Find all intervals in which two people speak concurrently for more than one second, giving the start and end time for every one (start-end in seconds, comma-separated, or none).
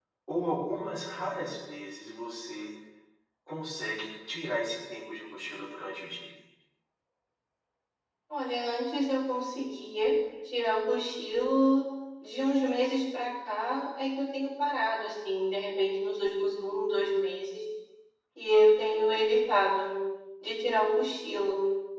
none